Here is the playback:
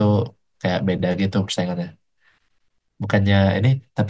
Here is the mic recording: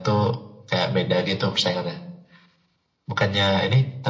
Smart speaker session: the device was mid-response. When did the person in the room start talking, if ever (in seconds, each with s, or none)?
none